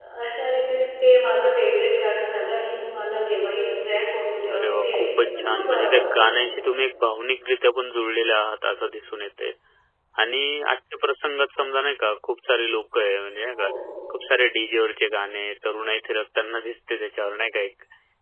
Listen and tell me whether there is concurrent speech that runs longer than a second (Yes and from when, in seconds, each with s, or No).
Yes, from 4.4 s